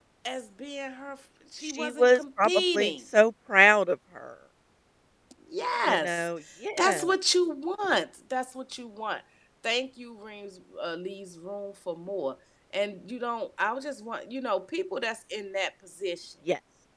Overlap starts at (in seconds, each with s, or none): 1.6 s